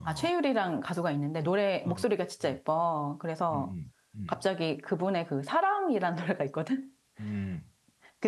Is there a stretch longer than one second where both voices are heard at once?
No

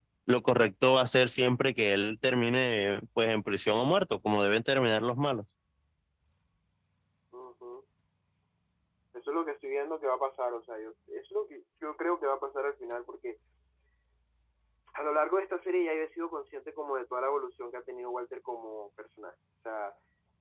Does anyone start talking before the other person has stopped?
No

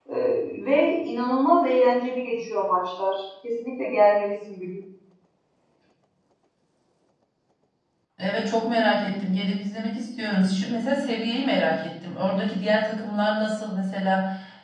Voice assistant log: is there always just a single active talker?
Yes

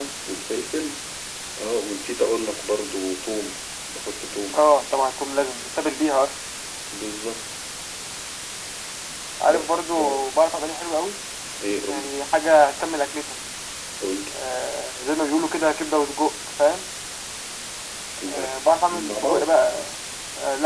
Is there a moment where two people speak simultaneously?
Yes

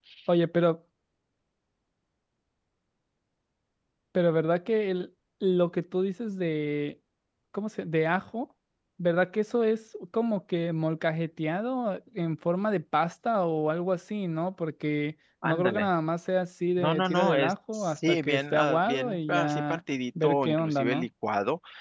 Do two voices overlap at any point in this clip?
Yes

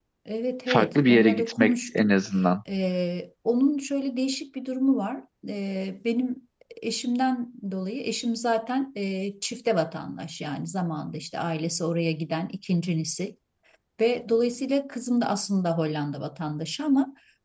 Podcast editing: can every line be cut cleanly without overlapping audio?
No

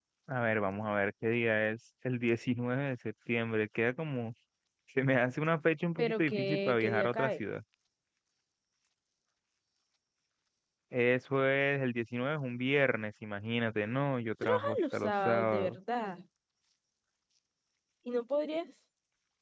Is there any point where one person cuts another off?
Yes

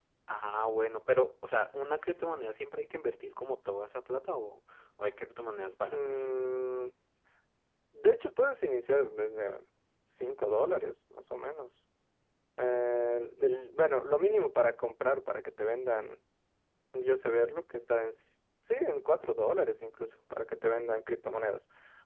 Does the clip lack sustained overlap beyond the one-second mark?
Yes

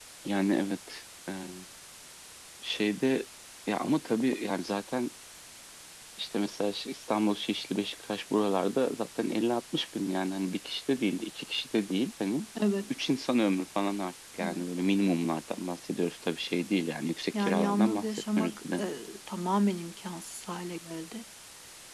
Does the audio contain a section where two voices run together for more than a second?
Yes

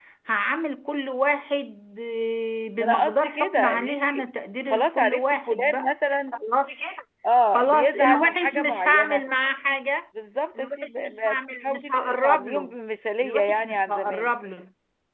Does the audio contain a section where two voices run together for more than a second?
Yes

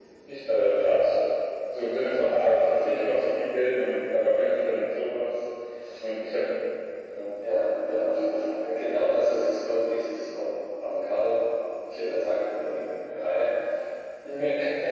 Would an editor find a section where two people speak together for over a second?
Yes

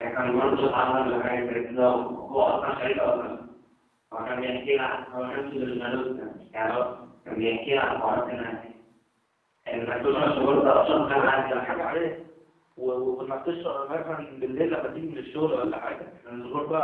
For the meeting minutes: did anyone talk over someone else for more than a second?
Yes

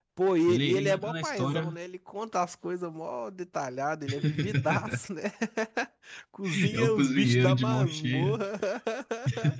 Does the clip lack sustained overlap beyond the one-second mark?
No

